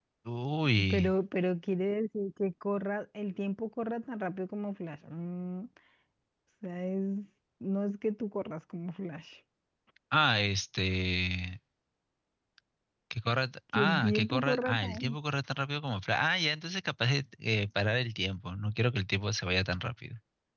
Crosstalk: present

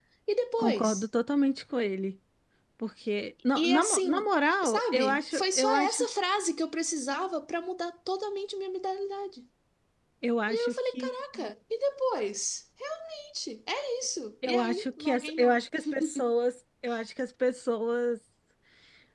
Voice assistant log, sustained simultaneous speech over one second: present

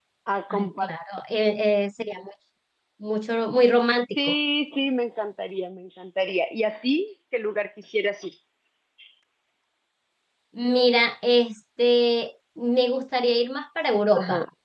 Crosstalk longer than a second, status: none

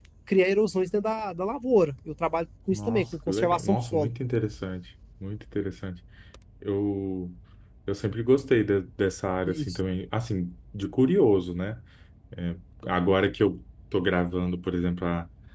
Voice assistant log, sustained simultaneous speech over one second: present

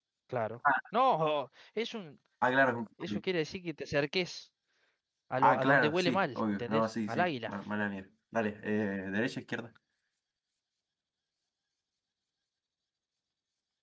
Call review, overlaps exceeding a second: present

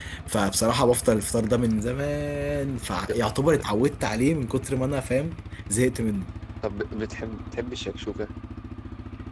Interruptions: none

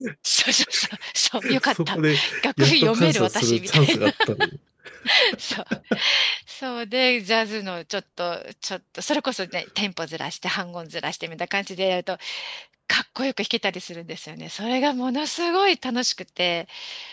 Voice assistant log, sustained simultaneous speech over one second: present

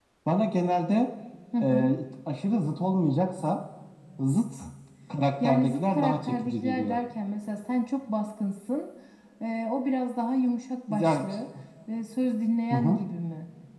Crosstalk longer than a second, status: present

